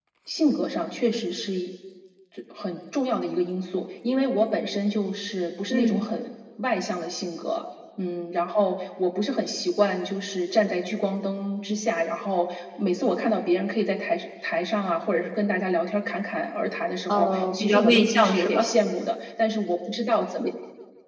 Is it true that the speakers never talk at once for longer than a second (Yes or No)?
No